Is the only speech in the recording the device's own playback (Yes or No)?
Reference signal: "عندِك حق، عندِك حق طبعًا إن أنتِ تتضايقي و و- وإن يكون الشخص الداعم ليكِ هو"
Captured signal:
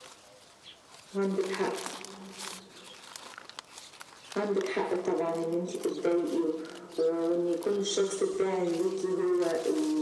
Yes